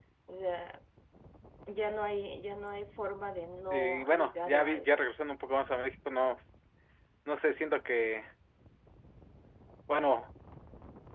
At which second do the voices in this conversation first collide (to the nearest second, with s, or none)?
4 s